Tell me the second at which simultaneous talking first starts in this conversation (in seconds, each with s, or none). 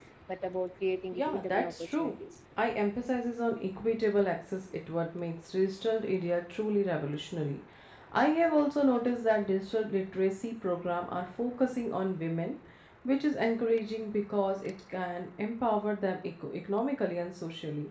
1.1 s